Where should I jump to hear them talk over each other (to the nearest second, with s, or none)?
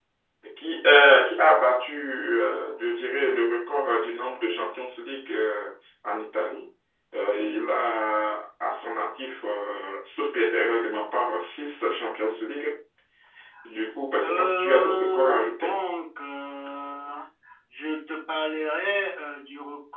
14 s